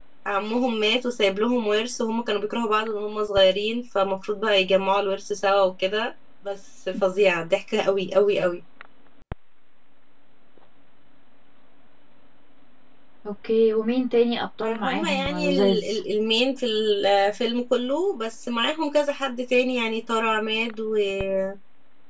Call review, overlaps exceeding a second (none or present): present